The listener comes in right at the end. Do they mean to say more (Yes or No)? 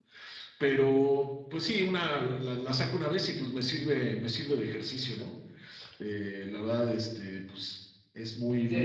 Yes